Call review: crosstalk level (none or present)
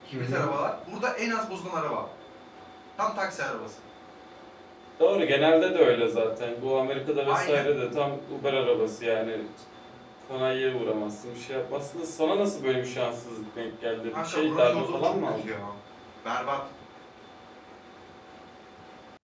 present